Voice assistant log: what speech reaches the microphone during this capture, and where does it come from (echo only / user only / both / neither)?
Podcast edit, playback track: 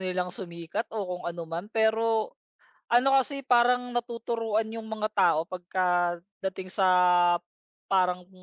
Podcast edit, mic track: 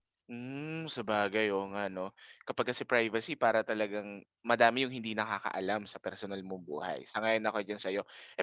user only